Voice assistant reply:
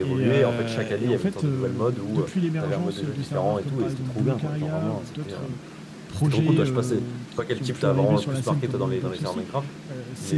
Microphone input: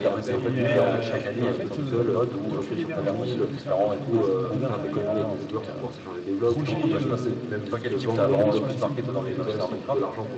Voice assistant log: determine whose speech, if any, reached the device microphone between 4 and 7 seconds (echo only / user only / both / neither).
both